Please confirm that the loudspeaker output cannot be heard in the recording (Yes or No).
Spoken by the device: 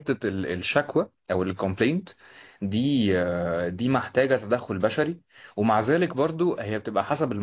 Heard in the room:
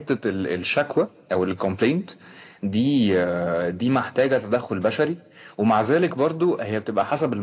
No